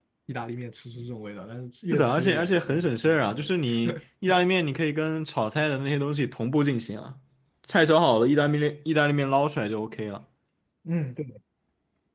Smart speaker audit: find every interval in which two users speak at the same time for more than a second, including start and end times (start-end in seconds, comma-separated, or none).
1.9-3.5